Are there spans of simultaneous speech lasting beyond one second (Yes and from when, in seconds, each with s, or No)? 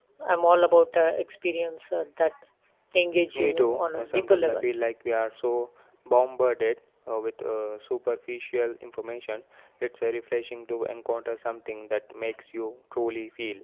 Yes, from 3.3 s